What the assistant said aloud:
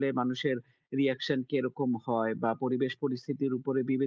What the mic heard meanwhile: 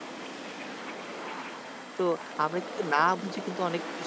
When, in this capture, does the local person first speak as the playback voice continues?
2 s

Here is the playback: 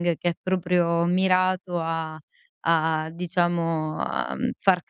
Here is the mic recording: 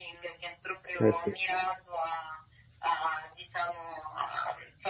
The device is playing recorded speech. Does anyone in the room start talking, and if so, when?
1 s

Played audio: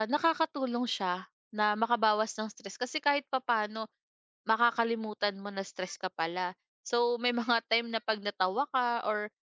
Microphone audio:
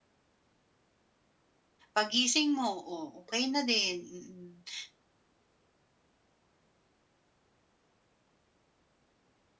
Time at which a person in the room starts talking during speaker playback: 2 s

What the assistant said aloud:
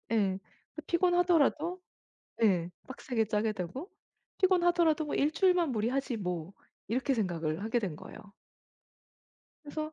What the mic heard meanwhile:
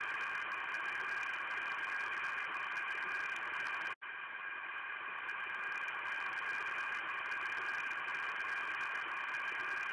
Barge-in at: none

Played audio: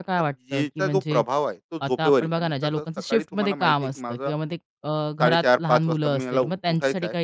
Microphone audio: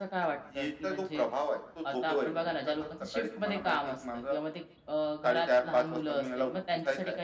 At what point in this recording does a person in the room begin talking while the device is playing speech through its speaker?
none

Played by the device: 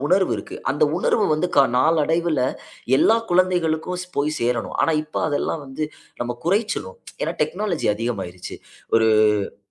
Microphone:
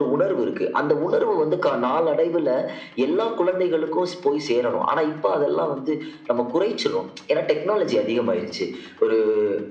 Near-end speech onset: none

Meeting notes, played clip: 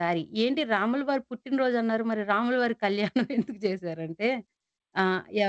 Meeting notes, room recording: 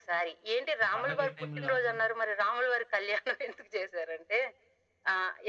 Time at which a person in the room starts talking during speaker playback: 1 s

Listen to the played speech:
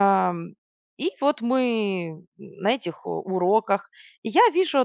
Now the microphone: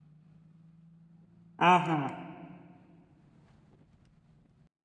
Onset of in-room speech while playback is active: 2 s

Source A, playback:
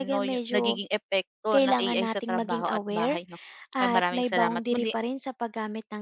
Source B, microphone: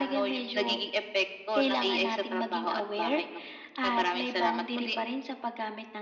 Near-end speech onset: none

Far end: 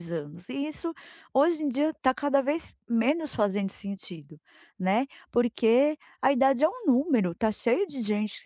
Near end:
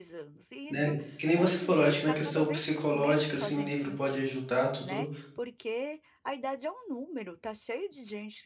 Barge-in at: 1 s

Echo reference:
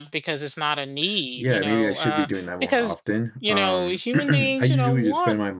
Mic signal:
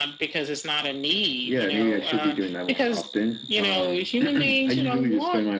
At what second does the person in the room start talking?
none

